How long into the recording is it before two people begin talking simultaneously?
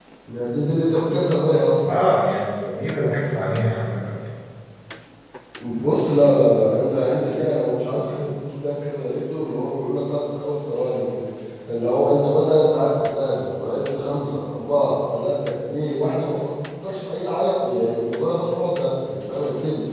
none

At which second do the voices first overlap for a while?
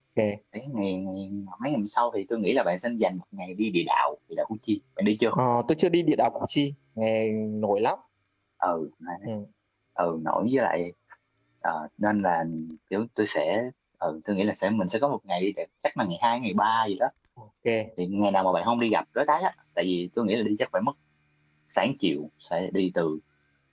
none

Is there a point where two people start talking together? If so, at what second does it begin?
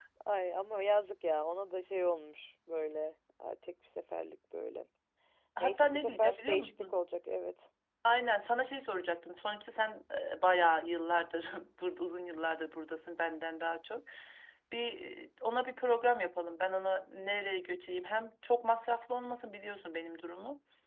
5.6 s

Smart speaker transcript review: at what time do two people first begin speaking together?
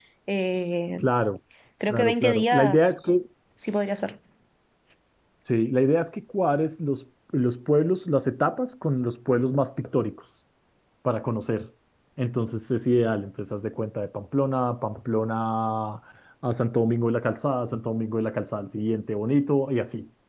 1.9 s

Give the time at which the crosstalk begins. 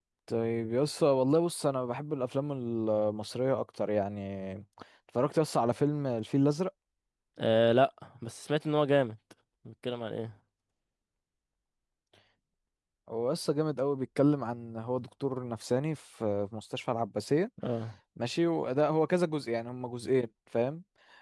none

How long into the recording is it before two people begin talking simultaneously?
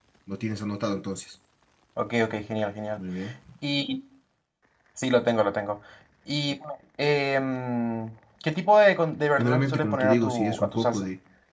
9.4 s

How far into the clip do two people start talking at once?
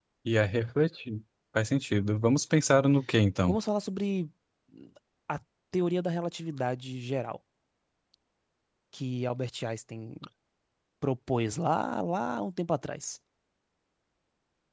none

